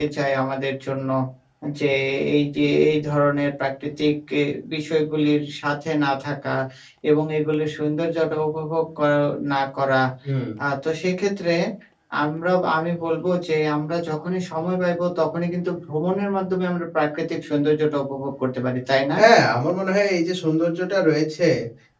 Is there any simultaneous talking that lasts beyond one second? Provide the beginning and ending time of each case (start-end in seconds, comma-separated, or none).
none